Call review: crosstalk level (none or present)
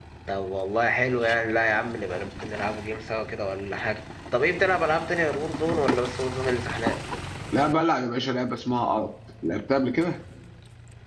none